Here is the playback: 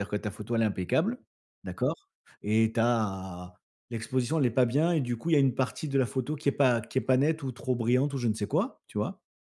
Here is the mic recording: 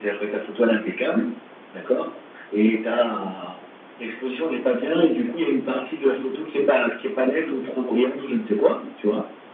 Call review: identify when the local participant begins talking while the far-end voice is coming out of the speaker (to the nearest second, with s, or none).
none